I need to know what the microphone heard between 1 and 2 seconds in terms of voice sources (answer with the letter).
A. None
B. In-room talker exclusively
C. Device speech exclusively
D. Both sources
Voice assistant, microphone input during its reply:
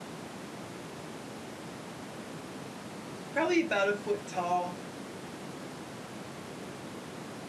A